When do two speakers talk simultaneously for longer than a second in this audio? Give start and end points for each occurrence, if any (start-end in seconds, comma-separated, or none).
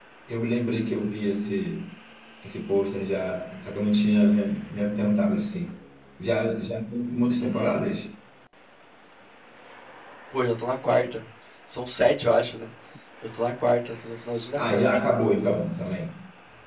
none